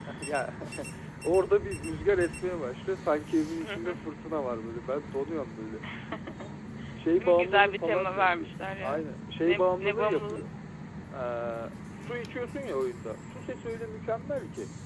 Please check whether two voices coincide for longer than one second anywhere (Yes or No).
Yes